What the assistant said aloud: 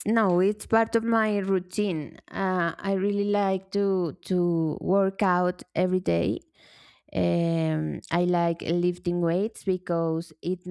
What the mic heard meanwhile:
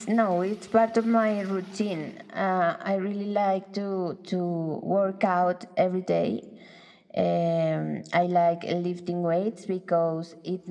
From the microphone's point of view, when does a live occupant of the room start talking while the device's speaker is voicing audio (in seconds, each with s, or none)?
none